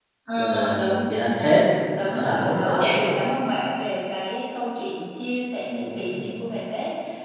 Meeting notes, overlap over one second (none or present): present